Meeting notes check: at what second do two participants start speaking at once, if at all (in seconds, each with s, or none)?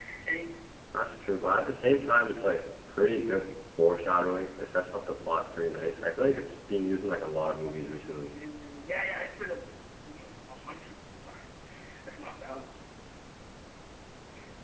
none